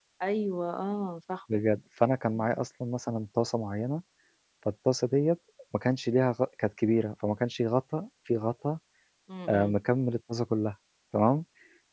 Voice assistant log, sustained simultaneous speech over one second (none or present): none